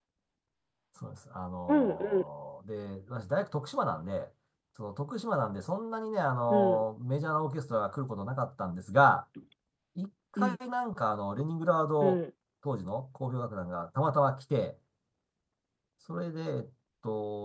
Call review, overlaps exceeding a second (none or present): none